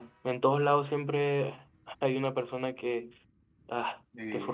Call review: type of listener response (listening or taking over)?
listening